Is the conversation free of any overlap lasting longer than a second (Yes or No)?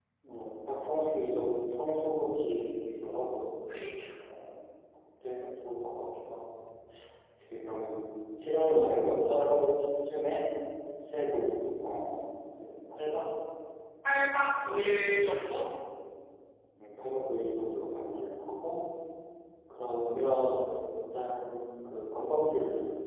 Yes